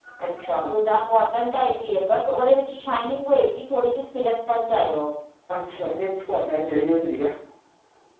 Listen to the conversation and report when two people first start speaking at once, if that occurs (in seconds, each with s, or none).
none